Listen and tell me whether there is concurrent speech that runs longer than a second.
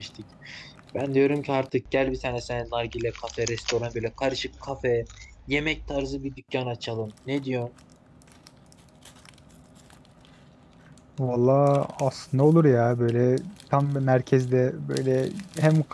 No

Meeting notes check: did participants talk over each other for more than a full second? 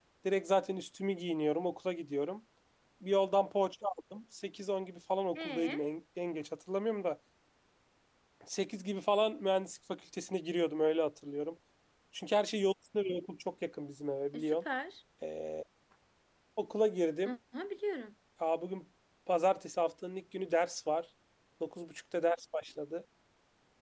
No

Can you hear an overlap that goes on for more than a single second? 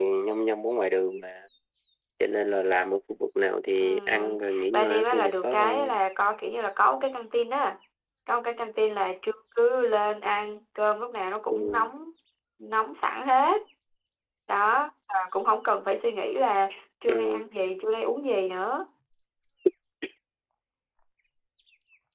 Yes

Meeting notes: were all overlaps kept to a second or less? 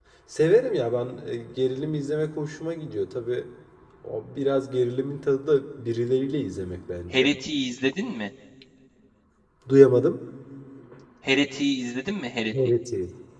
Yes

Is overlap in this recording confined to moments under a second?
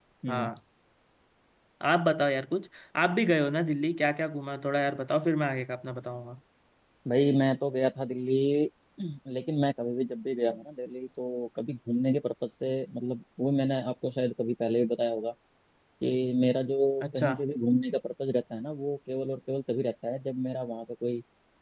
Yes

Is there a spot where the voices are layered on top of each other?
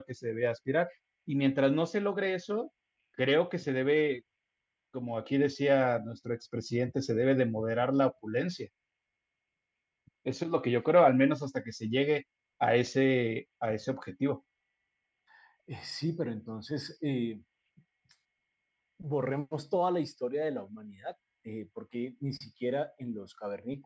No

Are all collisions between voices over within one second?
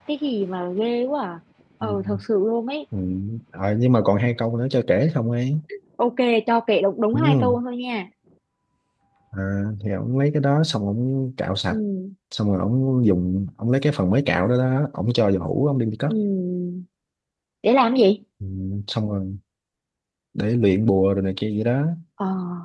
Yes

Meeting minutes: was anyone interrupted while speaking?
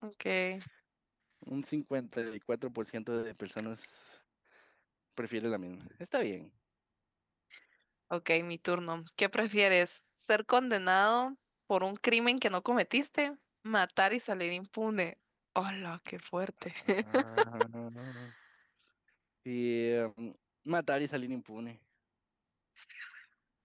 No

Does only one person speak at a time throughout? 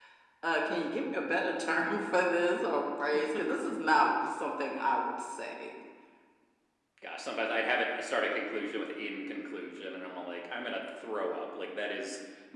Yes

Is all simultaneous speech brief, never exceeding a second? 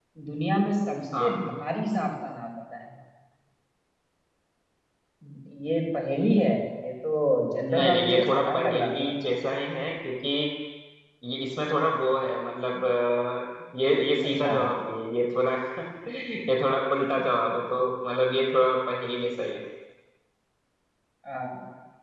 No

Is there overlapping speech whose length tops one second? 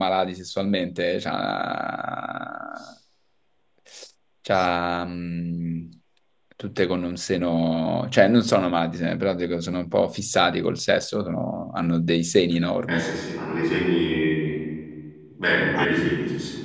No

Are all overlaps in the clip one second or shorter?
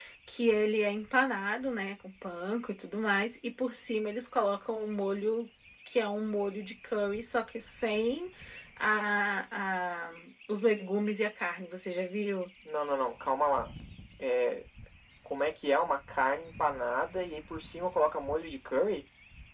Yes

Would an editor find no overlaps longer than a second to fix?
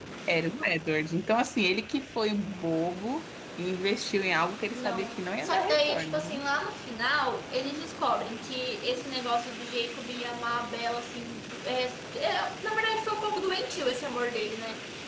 No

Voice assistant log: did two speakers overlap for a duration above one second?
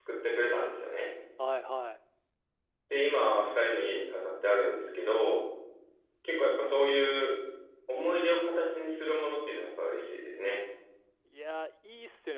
No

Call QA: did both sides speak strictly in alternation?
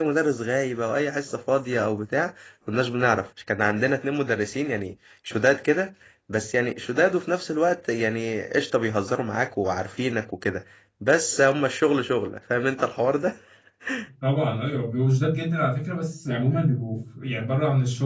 Yes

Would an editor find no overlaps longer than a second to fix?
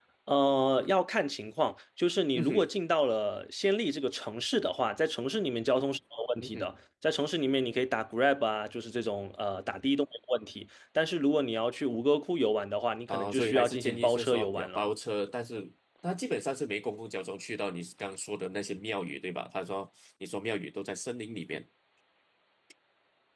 No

